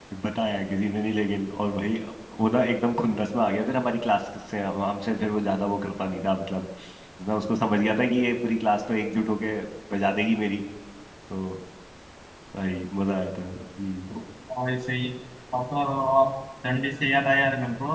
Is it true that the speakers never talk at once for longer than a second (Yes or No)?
Yes